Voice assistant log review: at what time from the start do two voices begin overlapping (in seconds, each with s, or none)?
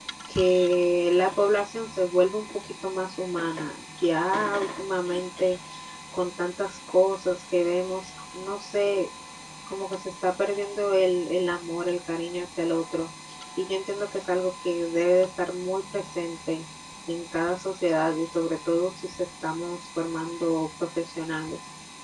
none